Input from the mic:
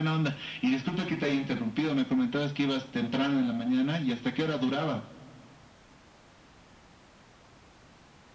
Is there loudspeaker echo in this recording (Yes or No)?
Yes